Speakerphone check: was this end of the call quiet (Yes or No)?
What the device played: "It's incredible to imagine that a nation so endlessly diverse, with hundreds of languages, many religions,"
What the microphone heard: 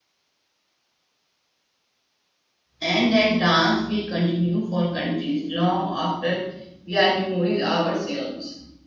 No